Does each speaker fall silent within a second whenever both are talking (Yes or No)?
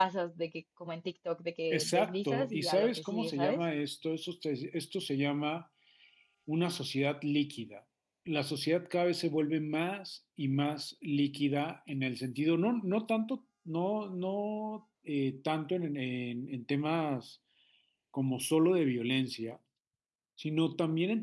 No